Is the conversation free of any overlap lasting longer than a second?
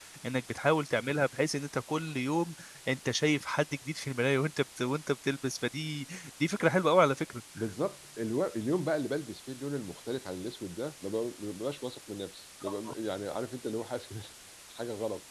Yes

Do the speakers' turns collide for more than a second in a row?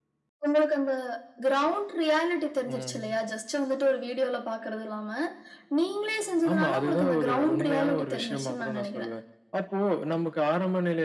Yes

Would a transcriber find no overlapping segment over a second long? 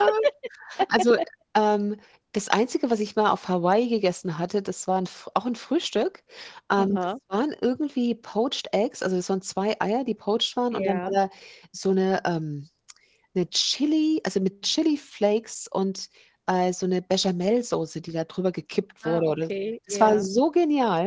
Yes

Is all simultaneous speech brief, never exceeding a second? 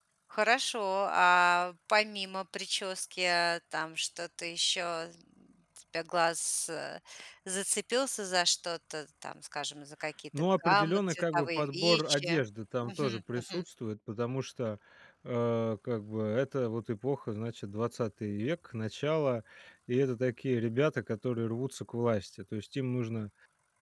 No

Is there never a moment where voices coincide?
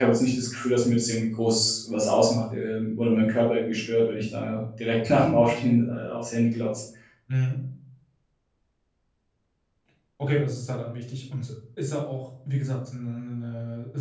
Yes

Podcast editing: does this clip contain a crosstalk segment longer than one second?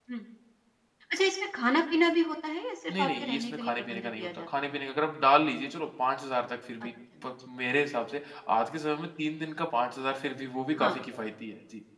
Yes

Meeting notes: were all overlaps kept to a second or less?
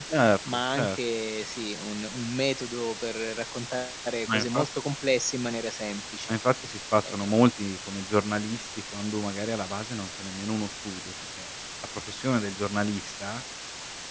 Yes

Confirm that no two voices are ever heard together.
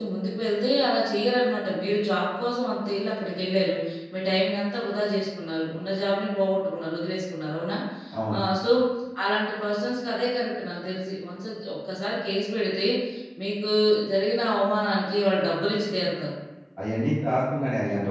Yes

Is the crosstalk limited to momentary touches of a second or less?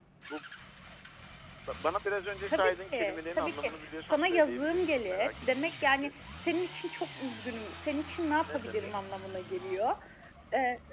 No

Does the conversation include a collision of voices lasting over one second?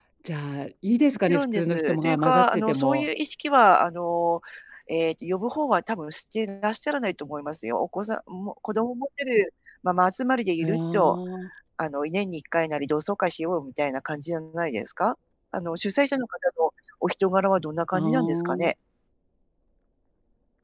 Yes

